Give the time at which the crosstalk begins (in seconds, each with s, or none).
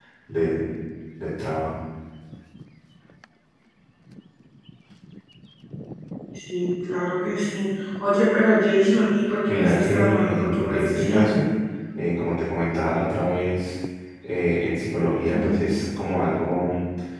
9.5 s